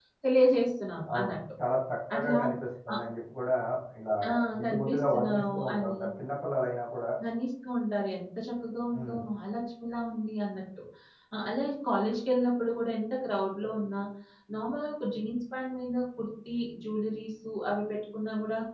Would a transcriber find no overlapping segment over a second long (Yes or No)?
No